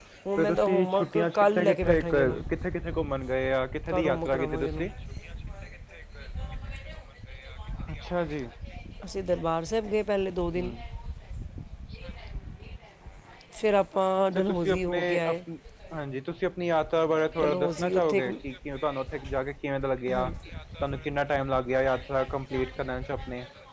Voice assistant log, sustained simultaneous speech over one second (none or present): present